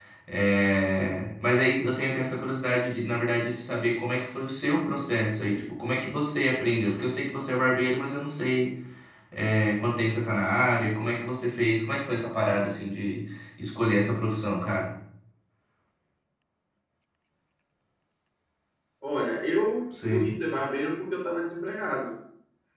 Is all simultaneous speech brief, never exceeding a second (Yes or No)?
Yes